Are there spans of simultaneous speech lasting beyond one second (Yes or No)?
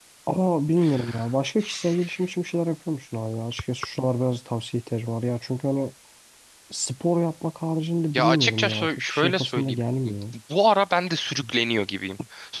Yes